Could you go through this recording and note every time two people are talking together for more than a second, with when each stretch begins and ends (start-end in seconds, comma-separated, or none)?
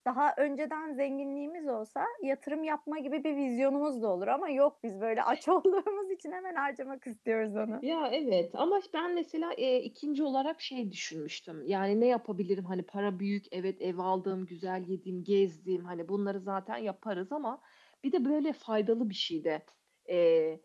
none